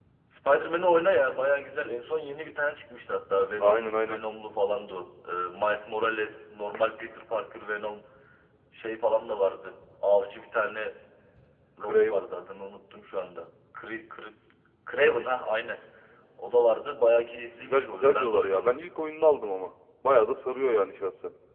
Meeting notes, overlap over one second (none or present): present